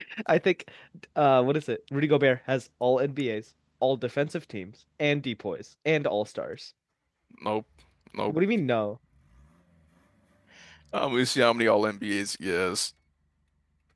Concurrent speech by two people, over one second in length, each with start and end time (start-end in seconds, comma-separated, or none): none